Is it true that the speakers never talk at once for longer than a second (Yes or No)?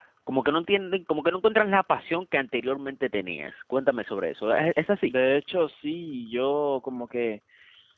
Yes